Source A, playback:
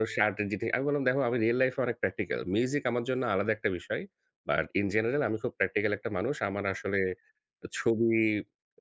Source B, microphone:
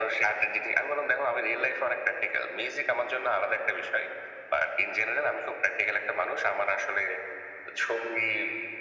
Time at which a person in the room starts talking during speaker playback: none

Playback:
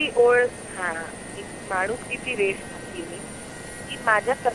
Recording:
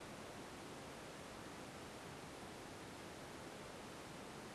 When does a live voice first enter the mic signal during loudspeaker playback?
none

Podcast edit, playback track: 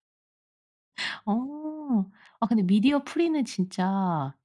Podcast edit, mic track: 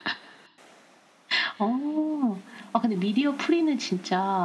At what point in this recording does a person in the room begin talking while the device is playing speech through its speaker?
none

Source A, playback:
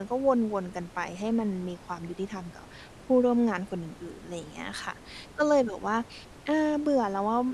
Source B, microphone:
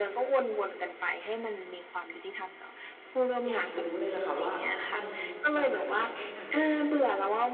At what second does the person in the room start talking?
3 s

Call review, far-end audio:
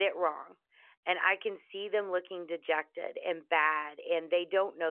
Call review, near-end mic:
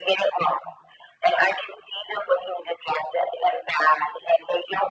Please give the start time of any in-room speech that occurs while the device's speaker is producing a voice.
none

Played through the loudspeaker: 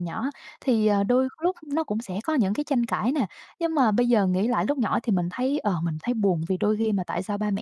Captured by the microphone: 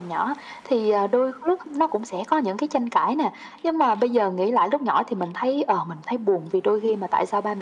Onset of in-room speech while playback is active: none

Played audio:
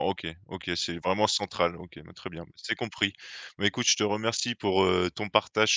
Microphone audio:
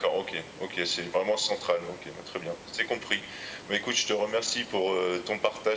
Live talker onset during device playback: none

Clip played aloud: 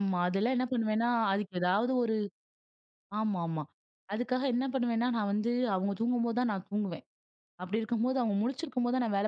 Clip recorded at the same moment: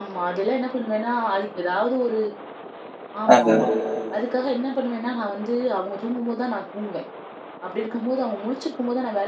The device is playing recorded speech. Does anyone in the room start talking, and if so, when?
3 s

